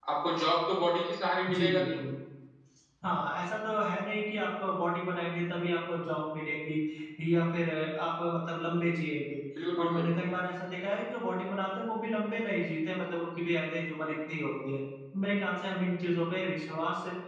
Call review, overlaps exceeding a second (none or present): none